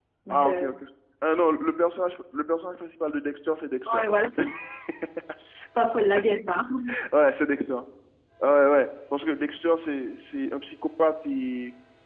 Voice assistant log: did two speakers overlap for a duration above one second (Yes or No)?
No